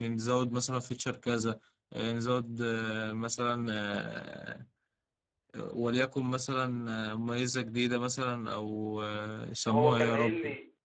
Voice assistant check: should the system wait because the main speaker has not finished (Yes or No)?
No